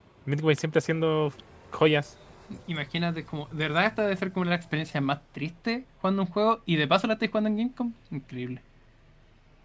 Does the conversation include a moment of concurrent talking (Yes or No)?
No